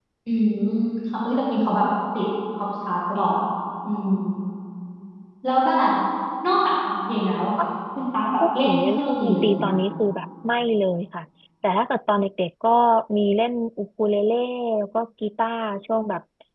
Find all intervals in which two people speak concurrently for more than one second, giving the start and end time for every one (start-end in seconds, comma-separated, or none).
8.4-9.8